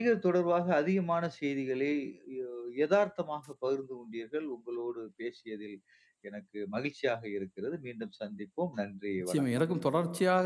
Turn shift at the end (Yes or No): Yes